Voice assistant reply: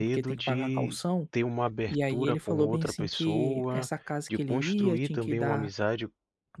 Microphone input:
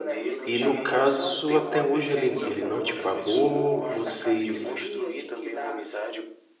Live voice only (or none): E no caso, até hoje ele ele não te pagou, vocês,